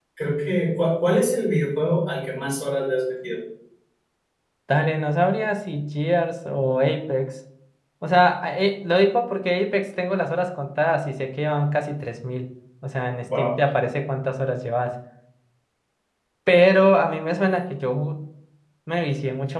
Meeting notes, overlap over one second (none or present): none